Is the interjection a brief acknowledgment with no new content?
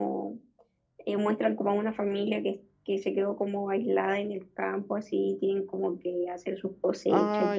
No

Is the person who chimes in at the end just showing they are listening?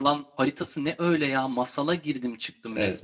No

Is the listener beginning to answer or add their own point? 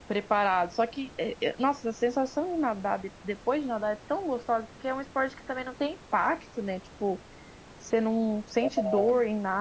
No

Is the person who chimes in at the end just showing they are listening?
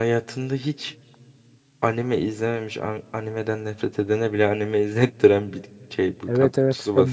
No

